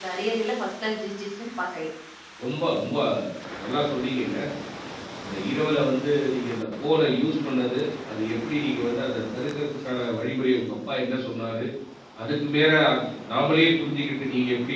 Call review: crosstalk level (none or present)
none